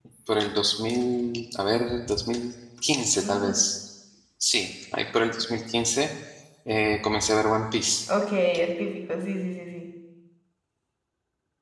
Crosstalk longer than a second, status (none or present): none